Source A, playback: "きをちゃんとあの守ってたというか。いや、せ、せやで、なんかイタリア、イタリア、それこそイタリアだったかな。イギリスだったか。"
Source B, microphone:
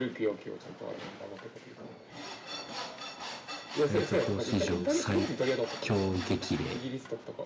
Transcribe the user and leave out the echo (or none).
グレイト4史上最強激励。